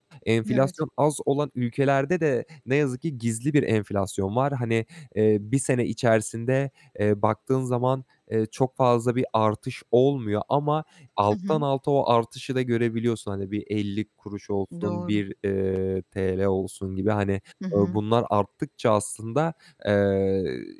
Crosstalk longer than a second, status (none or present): none